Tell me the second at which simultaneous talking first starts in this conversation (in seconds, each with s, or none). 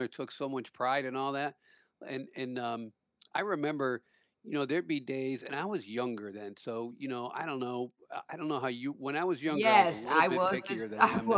9.5 s